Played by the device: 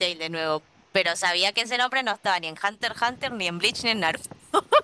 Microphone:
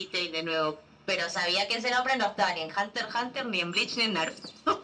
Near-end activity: none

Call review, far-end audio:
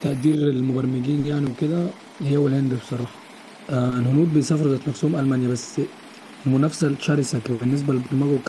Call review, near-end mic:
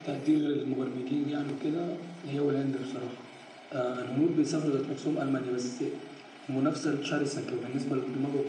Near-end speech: none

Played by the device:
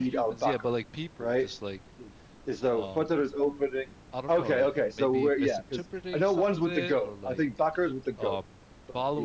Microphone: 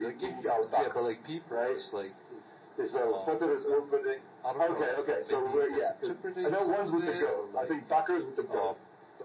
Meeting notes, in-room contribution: none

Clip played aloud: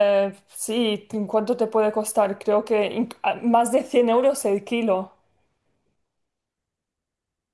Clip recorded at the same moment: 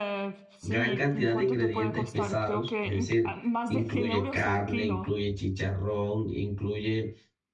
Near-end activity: present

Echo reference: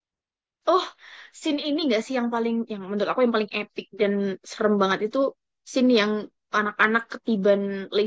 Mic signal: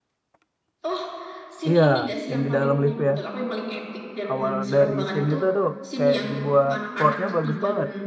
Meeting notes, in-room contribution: present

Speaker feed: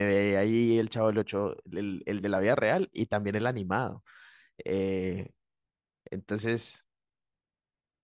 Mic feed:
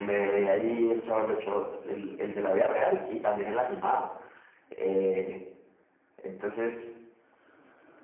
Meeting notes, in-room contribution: none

